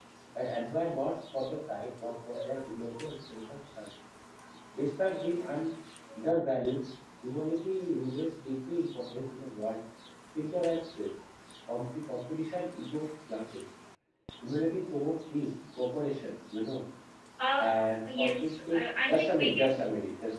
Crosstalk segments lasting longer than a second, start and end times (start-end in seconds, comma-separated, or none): 18.1-19.9